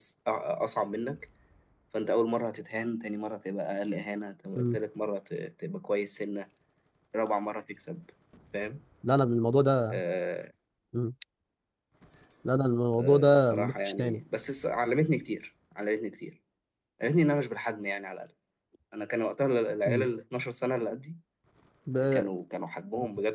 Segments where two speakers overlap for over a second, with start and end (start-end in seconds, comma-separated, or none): 12.9-14.2